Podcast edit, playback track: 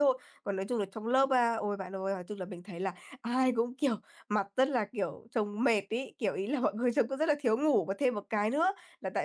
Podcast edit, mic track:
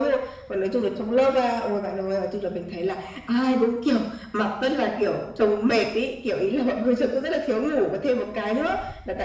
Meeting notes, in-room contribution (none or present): none